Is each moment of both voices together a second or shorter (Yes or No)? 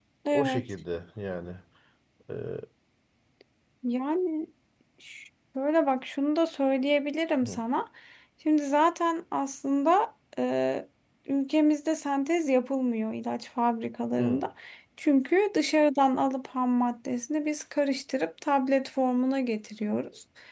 Yes